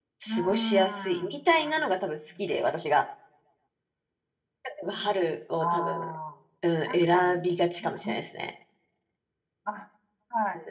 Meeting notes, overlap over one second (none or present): present